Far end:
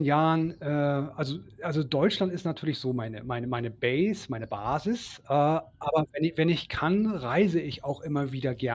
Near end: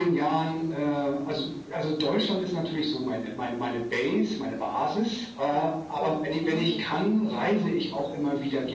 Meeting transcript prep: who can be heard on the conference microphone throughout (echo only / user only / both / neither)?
both